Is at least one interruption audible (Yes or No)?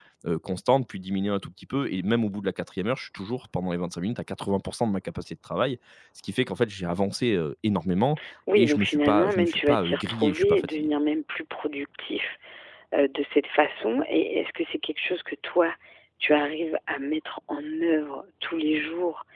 Yes